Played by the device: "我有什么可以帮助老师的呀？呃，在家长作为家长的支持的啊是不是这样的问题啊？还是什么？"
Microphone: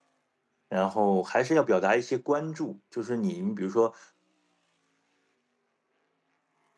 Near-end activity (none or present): present